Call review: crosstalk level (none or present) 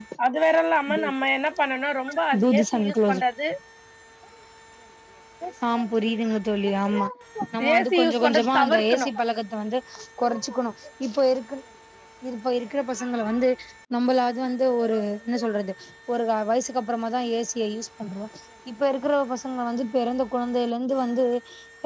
present